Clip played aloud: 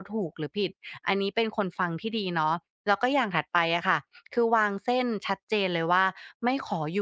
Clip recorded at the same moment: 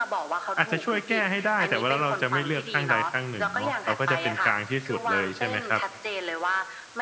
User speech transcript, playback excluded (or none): อาจจะช่วยแก้ให้ได้แต่ว่าแล้วเราจะไม่เลือกข้างใดข้างหนึ่งเนาะเราก็จะเป็นกลางที่สุดเลยใช่ไหมครับ